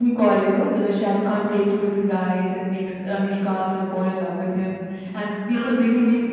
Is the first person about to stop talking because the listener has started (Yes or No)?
No